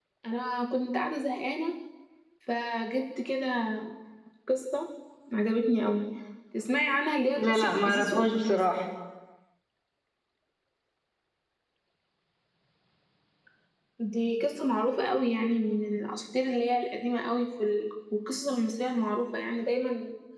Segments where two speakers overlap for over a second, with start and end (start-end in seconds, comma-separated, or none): 7.4-8.6